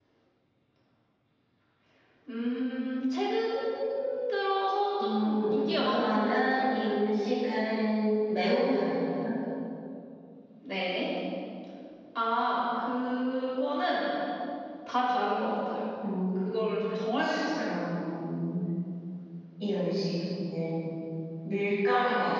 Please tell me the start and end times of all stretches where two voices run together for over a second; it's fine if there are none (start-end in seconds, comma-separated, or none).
5.0-6.8